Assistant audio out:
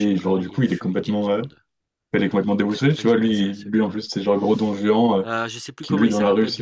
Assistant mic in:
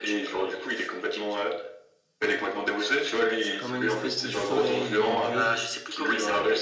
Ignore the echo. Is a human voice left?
Yes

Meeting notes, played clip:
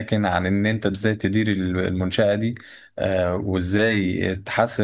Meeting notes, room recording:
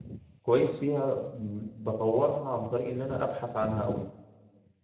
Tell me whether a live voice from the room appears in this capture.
Yes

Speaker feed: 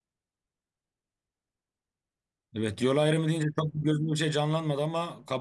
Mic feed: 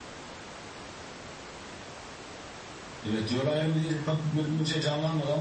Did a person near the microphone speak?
No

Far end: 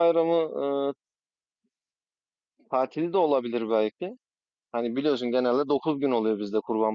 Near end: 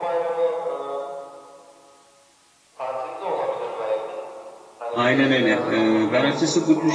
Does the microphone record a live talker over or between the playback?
Yes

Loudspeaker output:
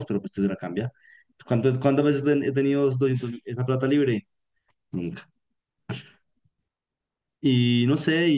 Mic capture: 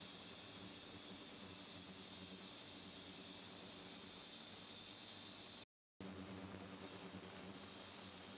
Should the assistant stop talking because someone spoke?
No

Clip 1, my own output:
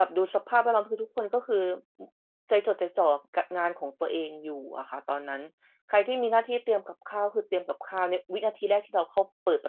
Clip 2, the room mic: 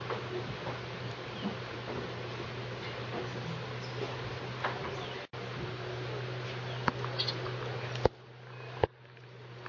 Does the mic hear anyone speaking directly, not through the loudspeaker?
No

